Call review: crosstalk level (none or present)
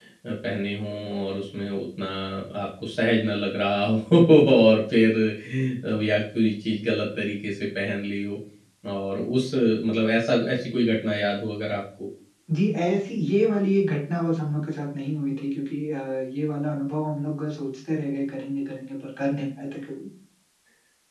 none